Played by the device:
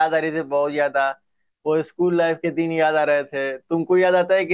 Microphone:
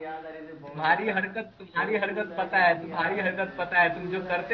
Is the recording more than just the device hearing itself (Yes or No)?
Yes